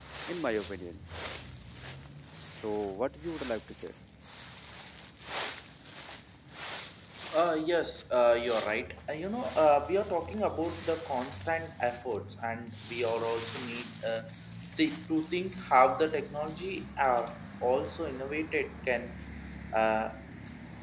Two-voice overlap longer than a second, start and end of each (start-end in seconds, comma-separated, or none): none